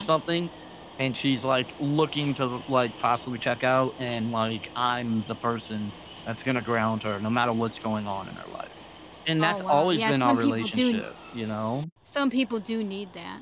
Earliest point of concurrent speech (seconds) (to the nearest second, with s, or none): 9 s